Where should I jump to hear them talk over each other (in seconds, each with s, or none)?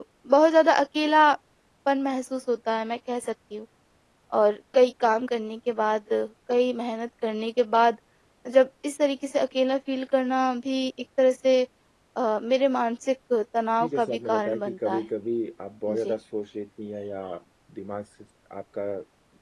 13.8 s